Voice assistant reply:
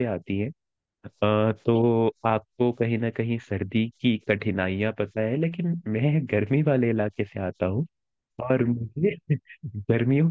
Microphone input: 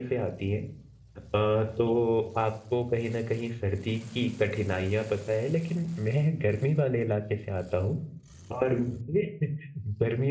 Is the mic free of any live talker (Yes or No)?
Yes